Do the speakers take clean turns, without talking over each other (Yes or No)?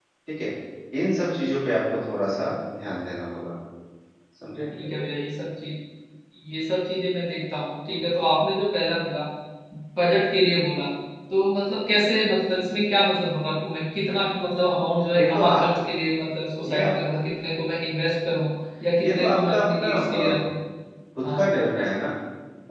No